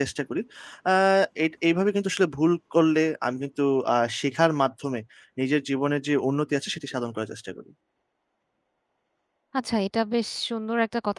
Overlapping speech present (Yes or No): No